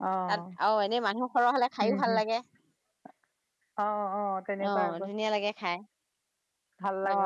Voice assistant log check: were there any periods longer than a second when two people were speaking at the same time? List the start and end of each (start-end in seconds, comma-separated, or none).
none